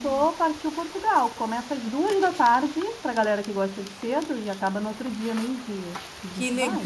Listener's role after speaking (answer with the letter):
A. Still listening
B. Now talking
B